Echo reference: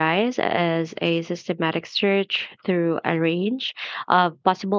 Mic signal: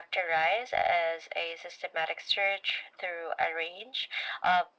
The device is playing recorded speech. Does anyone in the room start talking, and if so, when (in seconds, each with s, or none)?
none